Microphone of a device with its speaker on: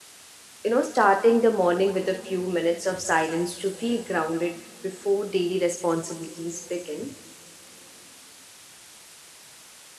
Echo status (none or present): none